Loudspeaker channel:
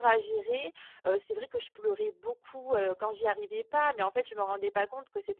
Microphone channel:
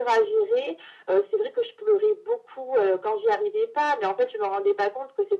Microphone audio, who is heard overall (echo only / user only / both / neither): echo only